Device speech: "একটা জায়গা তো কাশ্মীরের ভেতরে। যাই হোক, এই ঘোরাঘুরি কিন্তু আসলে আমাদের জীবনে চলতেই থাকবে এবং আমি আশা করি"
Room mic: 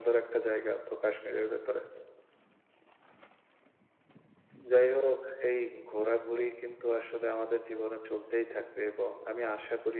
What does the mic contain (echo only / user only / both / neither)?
echo only